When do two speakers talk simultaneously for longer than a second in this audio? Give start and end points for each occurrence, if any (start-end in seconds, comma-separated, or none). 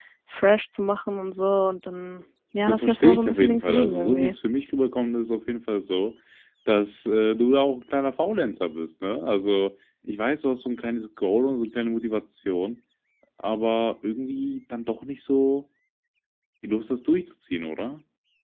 2.7-4.3